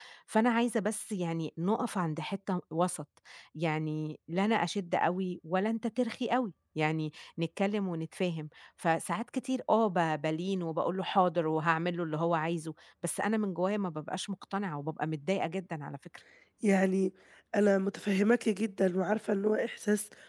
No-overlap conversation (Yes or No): Yes